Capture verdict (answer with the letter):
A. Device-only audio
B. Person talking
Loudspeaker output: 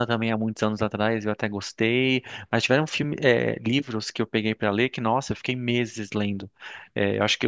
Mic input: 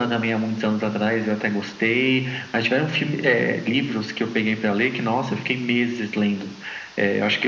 A